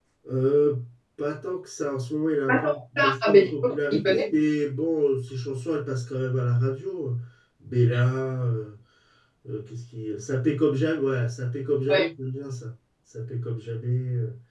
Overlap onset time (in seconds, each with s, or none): 2.5 s